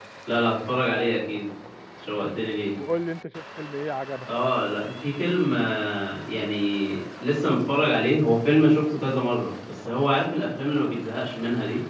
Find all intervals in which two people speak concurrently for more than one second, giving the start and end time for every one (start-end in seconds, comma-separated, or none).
none